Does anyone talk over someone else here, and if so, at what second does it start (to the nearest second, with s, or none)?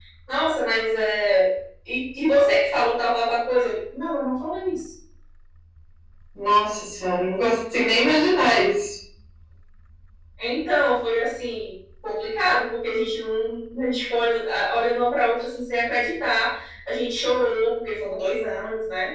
none